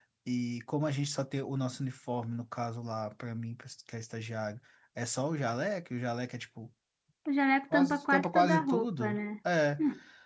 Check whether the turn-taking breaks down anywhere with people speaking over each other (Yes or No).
Yes